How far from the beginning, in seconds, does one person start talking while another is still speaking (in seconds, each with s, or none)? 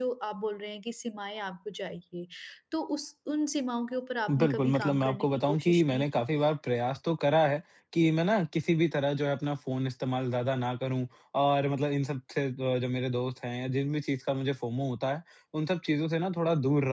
4.3 s